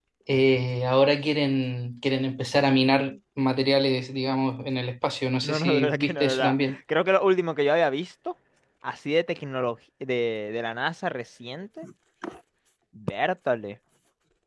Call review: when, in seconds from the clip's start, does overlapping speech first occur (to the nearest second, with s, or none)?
5 s